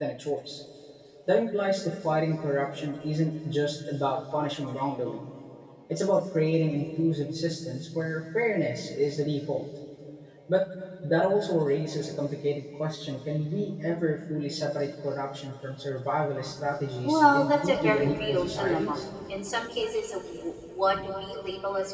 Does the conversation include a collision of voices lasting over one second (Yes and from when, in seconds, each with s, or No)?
Yes, from 17.0 s